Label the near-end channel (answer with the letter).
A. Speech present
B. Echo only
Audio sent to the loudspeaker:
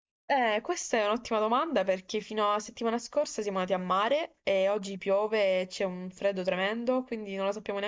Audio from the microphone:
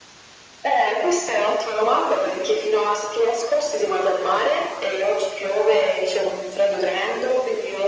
B